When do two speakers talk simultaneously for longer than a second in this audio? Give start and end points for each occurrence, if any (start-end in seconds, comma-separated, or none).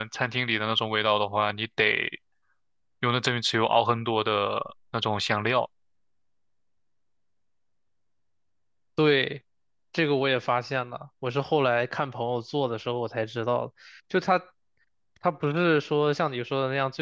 none